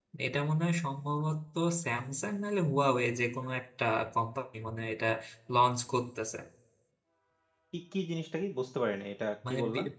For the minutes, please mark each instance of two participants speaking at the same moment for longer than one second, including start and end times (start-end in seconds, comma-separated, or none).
none